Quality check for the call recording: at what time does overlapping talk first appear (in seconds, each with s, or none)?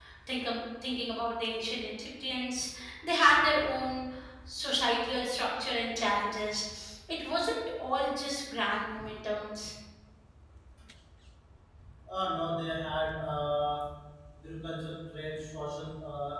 none